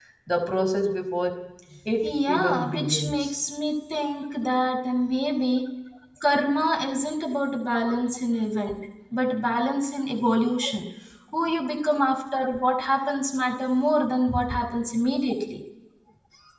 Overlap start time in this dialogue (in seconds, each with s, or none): 2.0 s